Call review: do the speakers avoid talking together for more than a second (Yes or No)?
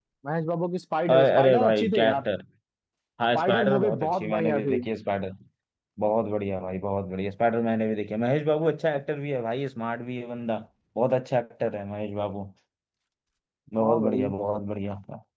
No